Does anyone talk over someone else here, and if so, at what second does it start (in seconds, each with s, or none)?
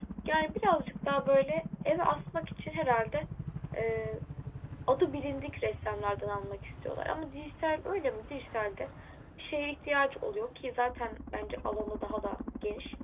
none